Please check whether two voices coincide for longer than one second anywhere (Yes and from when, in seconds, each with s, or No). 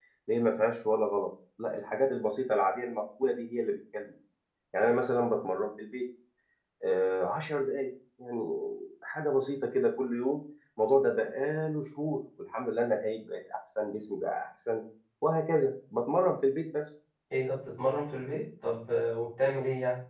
No